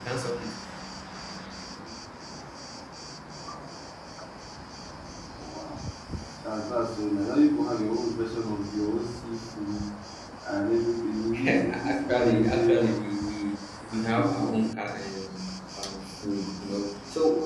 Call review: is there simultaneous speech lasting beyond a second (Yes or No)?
Yes